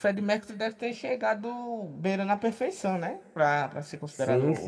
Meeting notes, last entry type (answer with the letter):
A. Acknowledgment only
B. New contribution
B